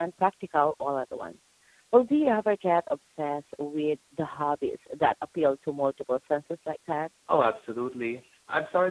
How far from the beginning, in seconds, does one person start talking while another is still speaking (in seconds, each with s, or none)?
none